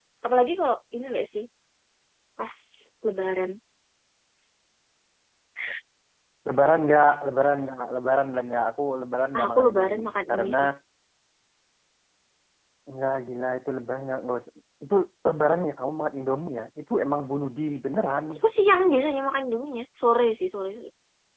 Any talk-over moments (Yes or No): Yes